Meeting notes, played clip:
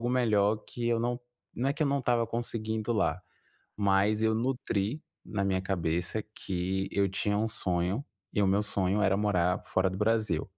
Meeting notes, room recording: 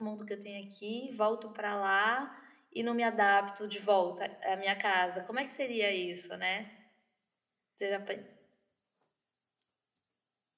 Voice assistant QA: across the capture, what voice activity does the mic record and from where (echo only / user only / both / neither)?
user only